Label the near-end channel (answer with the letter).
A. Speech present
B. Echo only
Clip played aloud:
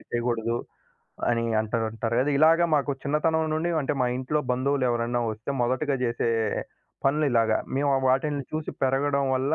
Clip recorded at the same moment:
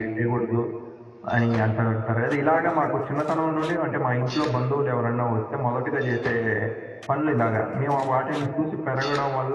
B